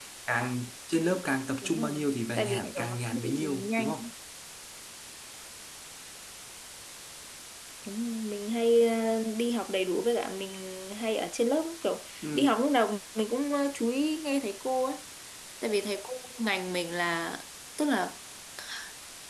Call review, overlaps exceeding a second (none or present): present